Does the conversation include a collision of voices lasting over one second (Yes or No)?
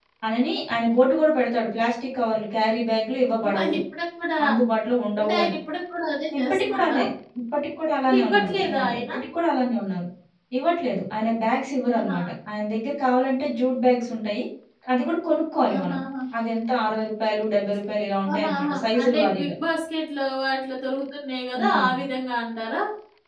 Yes